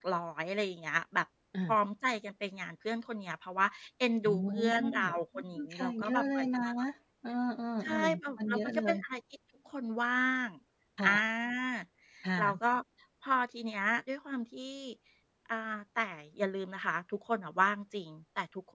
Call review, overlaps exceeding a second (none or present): present